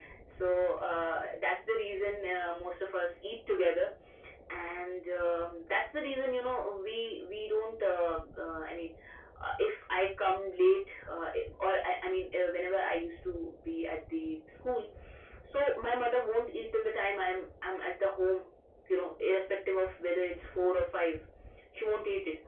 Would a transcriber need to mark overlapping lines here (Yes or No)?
No